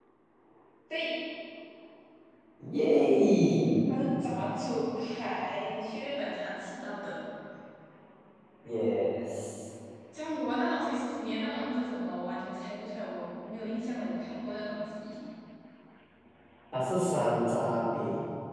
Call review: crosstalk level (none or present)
none